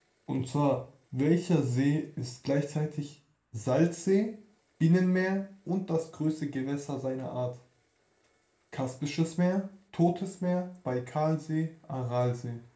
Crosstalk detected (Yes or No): No